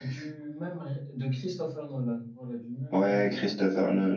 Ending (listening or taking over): taking over